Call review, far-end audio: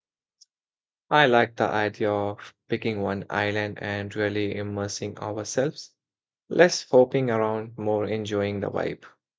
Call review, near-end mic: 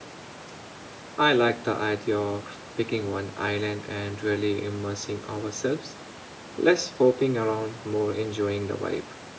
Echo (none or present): present